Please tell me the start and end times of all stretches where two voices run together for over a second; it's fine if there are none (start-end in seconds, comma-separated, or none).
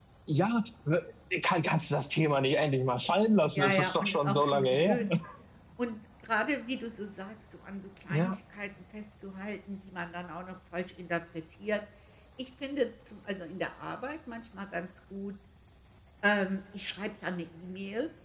3.5-5.0